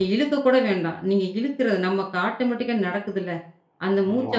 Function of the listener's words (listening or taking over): listening